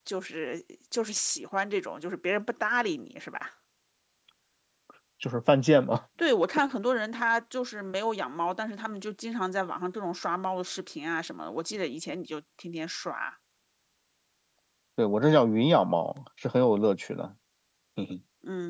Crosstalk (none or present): none